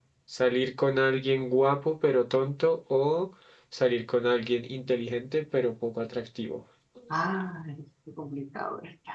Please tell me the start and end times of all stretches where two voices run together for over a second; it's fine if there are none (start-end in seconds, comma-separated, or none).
none